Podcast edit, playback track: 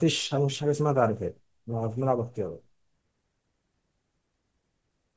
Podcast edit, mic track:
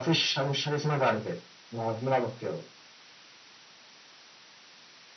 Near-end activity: none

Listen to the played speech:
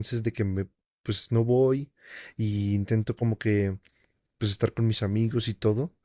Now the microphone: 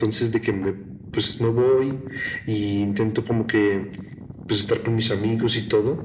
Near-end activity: none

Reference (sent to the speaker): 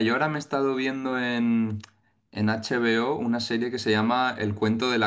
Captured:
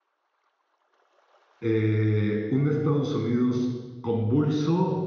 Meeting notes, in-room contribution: present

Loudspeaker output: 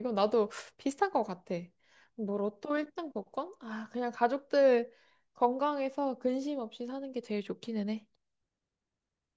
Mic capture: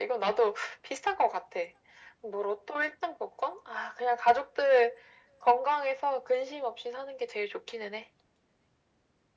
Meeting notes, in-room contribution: none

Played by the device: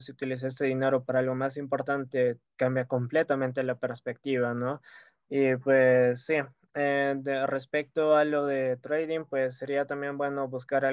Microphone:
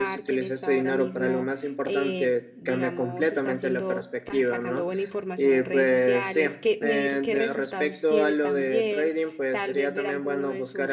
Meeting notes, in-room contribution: present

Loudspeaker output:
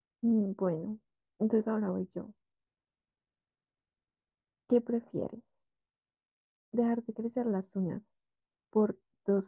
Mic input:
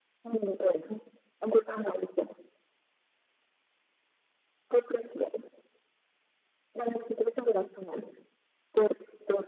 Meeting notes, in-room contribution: none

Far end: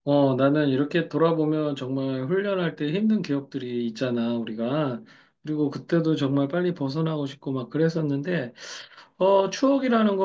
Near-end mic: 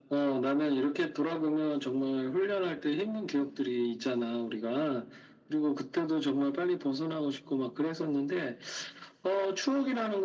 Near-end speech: none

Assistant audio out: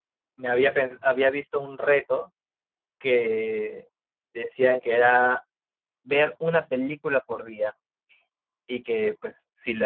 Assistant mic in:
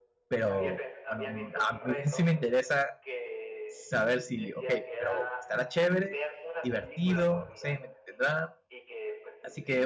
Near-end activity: present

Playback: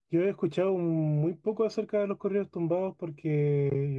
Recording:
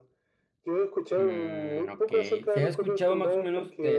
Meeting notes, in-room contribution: present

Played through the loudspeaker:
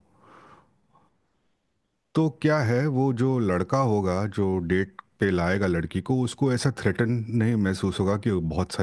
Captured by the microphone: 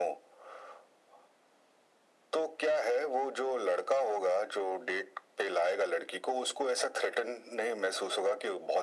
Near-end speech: none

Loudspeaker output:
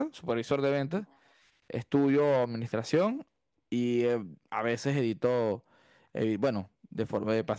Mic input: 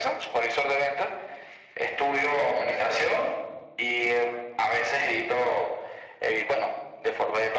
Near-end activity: none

